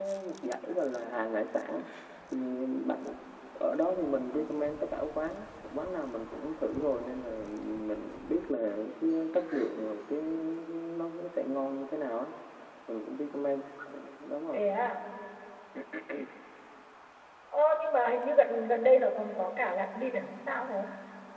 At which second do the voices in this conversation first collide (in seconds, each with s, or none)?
none